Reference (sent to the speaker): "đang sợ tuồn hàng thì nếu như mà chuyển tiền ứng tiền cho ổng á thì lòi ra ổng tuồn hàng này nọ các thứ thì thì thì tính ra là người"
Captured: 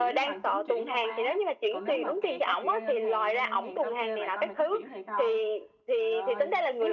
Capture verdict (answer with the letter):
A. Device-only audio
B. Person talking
B